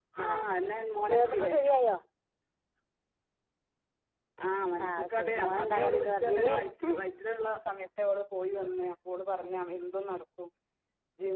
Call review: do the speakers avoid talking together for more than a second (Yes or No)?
No